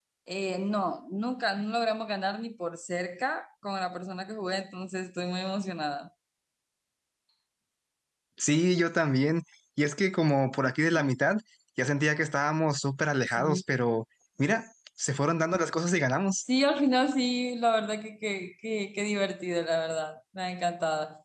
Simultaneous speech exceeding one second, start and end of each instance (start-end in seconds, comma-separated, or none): none